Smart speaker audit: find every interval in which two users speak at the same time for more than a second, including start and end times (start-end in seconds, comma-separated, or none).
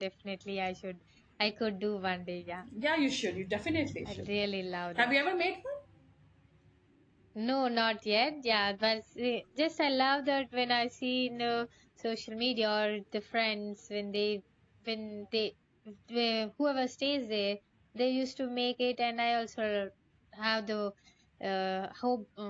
none